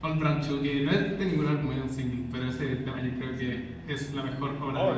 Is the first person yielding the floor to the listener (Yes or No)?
Yes